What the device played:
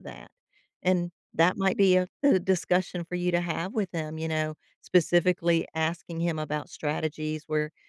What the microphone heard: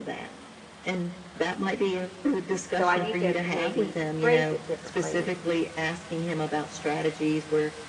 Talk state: both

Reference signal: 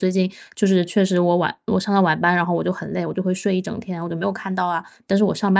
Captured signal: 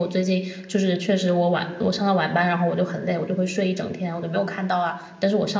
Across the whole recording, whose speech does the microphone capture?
echo only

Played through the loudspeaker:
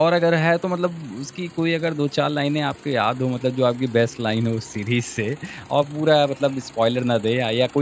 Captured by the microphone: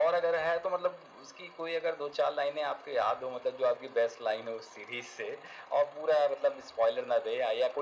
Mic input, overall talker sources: echo only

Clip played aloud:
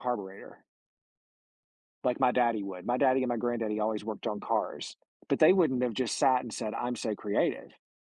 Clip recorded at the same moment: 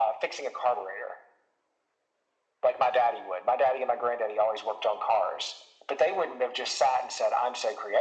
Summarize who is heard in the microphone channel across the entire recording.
echo only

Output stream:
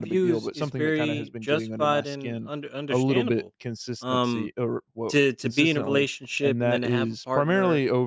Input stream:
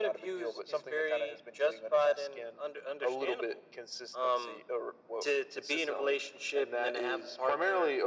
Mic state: echo only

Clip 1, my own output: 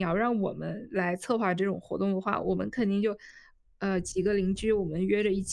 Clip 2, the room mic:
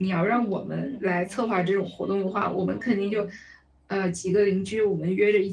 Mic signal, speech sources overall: both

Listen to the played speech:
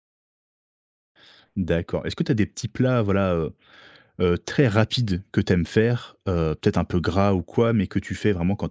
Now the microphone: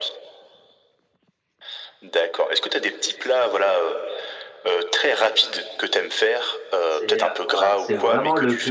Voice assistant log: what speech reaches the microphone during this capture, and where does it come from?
both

